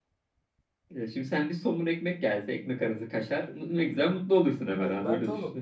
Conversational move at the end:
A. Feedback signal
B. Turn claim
B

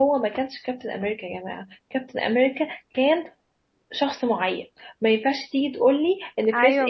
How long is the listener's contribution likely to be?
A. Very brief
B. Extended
A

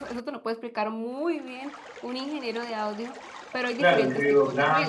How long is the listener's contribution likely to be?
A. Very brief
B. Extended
B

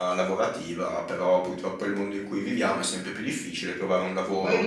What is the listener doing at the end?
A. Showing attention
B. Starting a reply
B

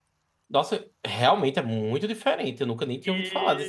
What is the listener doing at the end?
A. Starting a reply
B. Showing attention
A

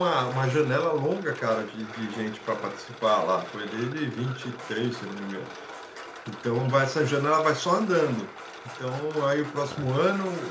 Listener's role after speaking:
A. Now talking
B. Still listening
B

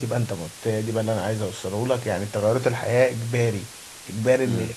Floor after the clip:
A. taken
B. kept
B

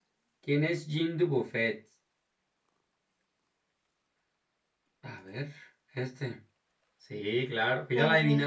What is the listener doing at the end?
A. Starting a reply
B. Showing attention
B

